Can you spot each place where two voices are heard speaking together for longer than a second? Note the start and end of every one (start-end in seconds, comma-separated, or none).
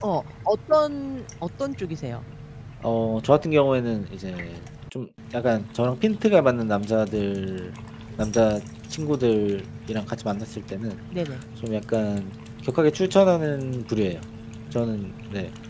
none